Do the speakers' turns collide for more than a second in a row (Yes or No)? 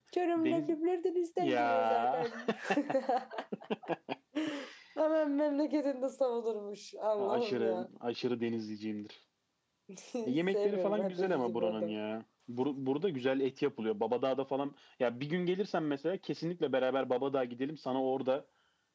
Yes